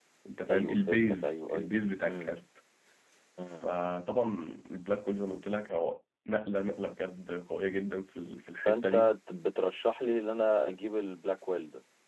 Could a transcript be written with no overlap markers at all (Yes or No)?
No